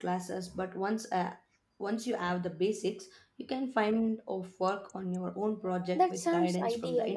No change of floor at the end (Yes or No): No